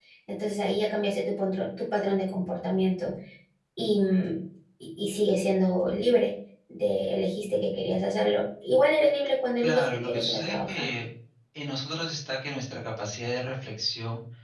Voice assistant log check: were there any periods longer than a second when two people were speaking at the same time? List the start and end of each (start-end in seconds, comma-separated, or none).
9.6-10.8